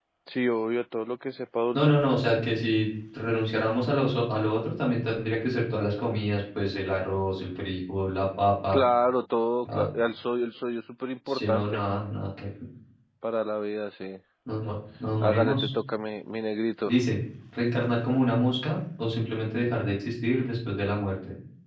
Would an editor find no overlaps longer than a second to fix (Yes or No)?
Yes